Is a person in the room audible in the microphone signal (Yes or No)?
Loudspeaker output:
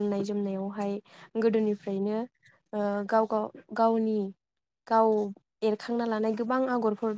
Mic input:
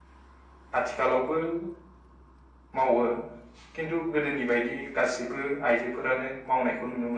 Yes